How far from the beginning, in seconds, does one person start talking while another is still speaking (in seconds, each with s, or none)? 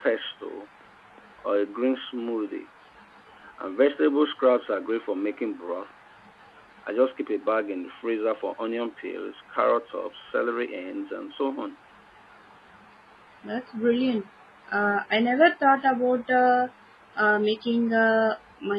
none